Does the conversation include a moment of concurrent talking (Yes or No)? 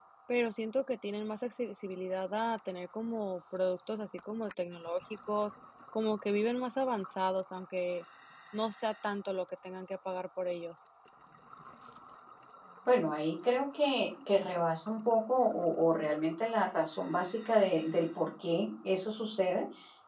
No